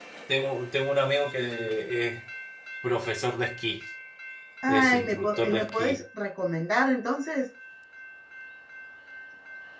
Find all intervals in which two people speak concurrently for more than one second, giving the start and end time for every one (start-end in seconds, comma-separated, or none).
4.7-6.0